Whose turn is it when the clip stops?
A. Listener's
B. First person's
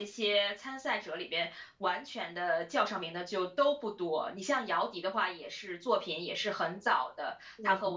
B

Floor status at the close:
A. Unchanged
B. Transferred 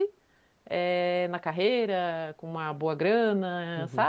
B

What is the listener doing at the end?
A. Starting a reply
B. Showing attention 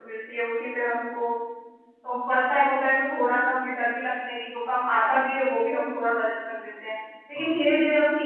B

